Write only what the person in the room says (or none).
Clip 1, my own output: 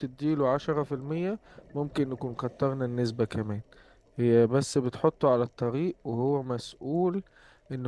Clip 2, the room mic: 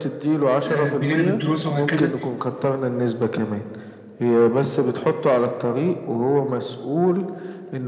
آه، بجانب الدراسة وهكذا